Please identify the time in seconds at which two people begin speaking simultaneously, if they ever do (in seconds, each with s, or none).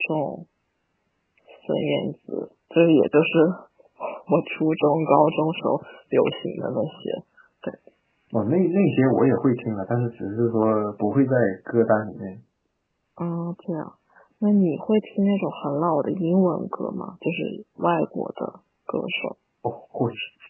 none